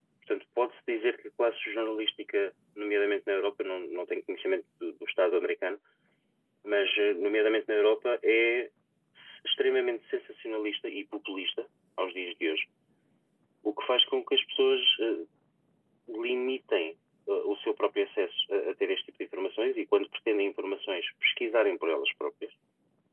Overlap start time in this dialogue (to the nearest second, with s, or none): none